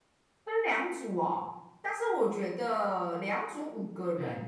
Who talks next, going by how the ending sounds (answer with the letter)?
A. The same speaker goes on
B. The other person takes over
A